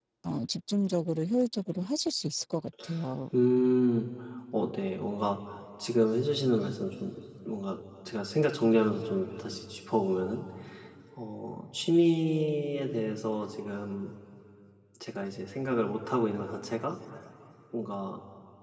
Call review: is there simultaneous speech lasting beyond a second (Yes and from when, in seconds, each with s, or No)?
No